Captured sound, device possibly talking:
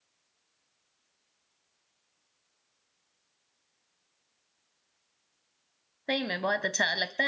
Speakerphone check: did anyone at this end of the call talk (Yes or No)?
Yes